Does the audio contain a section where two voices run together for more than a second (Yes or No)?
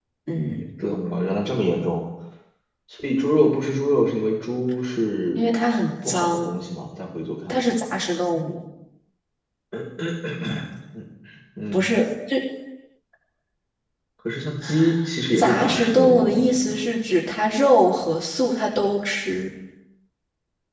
Yes